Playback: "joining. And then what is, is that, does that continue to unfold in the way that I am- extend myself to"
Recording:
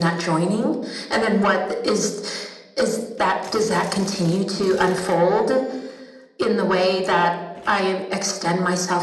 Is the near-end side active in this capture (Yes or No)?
No